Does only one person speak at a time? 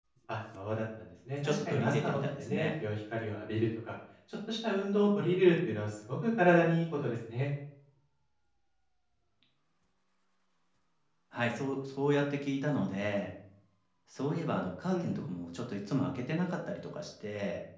No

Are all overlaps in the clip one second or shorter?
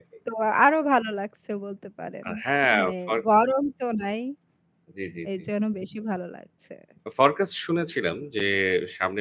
Yes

